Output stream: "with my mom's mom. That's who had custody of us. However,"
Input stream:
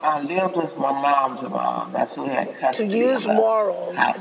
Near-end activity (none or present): present